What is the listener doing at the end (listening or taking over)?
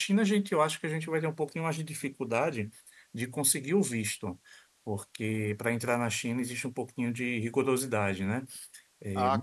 taking over